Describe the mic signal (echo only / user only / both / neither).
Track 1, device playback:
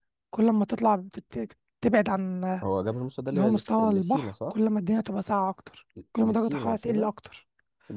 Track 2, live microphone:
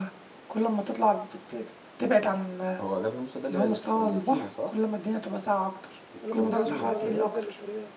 both